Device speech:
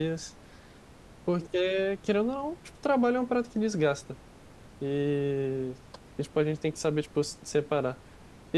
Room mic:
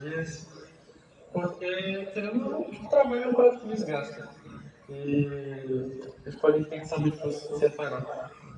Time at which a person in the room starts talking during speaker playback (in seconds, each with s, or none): none